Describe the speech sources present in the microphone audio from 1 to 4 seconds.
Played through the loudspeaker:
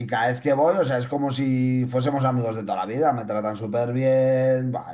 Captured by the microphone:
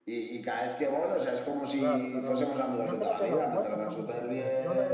both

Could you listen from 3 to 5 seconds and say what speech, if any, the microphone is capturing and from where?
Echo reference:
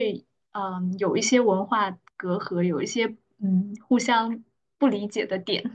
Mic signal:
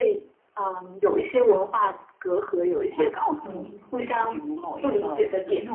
both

